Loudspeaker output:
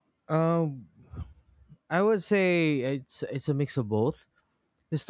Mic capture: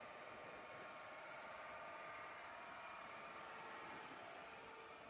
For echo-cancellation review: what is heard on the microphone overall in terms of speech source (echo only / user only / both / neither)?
neither